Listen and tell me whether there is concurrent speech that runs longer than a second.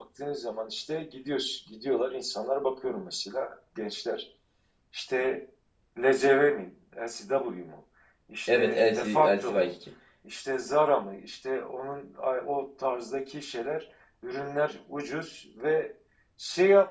Yes, from 8.5 s

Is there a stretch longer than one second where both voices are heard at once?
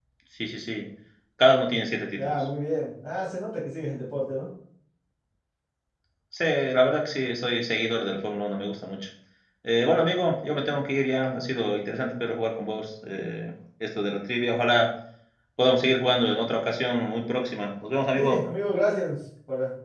No

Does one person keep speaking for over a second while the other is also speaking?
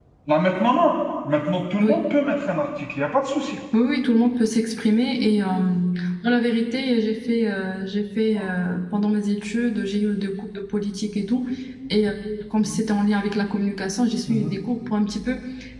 No

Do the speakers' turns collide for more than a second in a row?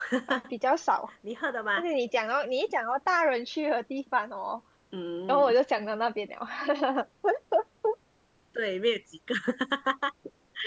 No

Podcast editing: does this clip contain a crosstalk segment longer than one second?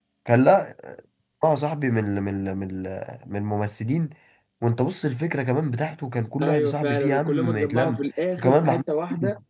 Yes, from 6.4 s

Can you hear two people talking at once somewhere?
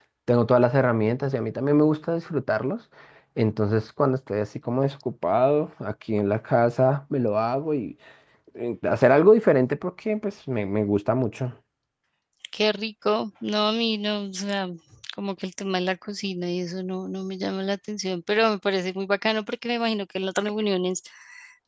No

